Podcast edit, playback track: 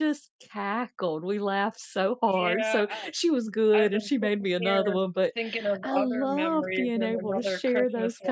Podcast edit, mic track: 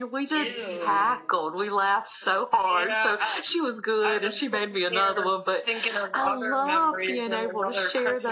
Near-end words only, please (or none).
ew.